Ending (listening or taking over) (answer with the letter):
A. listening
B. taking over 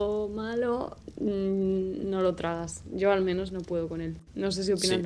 B